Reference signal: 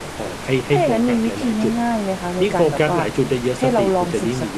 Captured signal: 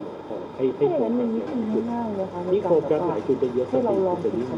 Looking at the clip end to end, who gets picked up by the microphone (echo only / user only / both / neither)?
echo only